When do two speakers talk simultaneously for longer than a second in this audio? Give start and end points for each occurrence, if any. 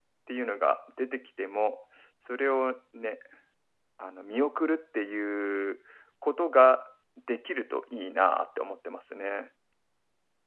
none

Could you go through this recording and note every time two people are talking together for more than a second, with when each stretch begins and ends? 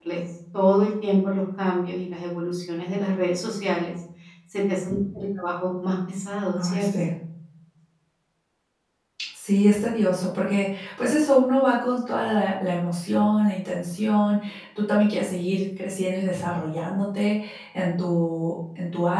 none

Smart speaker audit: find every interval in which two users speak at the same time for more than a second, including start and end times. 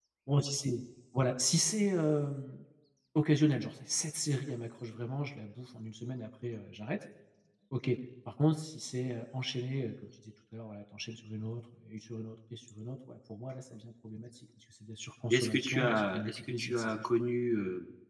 15.3-17.1

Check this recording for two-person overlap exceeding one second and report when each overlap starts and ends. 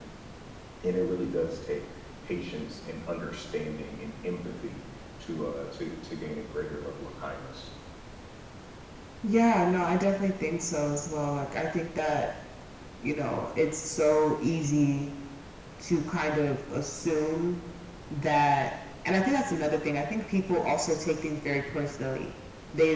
none

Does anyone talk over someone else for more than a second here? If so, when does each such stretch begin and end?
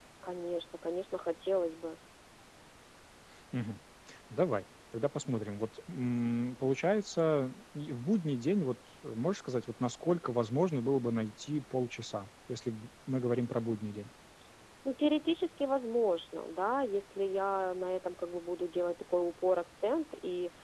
none

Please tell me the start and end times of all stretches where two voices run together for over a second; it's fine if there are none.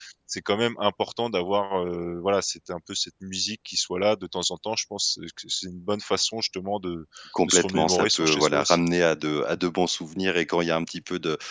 7.5-8.8

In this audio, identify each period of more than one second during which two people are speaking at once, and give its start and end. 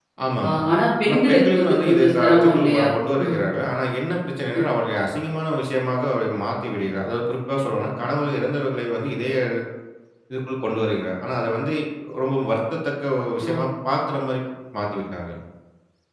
1.1-2.9

